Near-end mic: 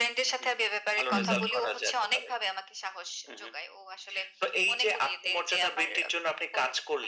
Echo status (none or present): present